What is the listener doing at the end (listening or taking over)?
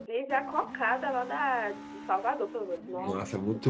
taking over